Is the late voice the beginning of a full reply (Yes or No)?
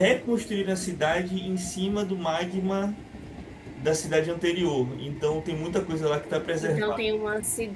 Yes